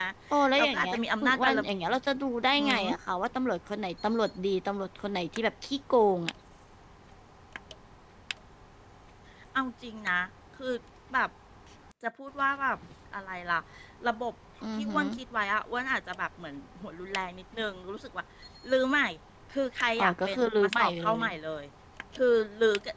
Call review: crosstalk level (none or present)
present